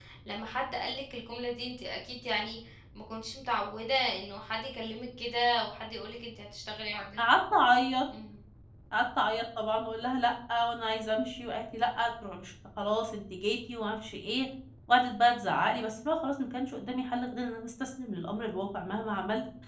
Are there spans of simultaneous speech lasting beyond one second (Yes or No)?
No